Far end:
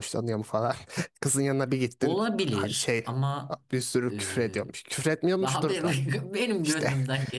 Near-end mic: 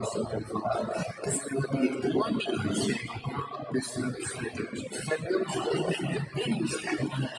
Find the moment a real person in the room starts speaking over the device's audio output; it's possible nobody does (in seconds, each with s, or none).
none